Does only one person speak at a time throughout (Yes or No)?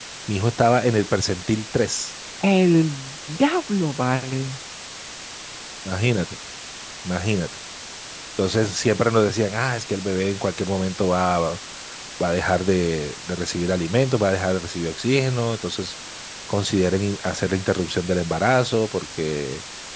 Yes